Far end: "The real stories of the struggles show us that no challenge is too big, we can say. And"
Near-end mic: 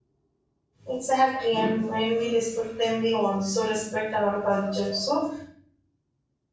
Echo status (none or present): none